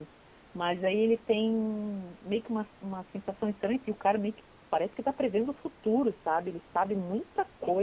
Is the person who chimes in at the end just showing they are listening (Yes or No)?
Yes